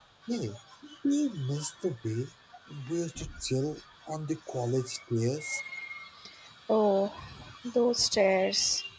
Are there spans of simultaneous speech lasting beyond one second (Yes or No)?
No